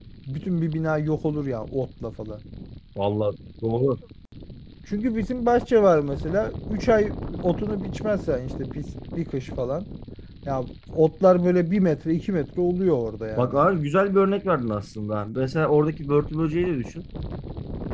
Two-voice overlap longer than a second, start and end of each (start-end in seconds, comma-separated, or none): none